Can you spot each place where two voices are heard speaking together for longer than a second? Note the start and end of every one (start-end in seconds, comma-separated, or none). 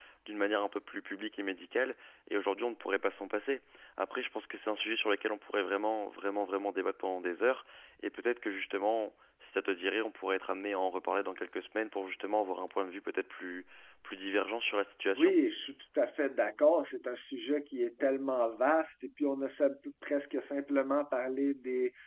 none